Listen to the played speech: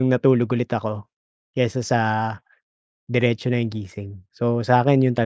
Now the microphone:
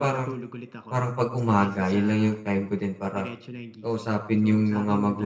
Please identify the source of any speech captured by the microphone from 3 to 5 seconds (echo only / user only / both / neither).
both